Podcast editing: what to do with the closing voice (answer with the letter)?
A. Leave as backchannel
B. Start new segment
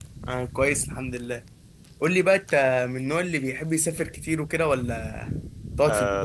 B